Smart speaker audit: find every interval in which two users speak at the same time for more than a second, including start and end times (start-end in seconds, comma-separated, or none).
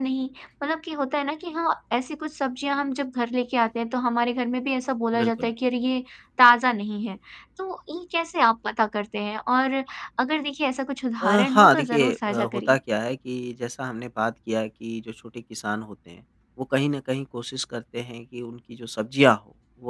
11.2-12.8